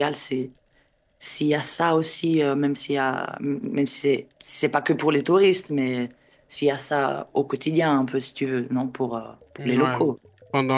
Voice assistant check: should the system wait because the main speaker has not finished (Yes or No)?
No